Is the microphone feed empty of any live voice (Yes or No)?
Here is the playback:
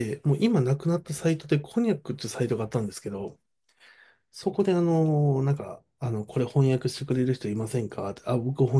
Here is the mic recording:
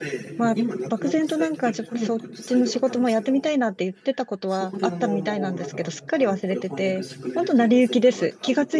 No